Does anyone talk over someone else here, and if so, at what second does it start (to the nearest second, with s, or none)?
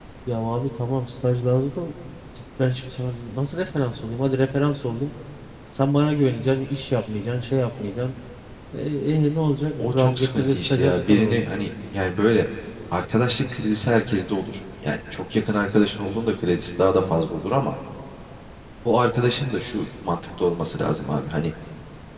10 s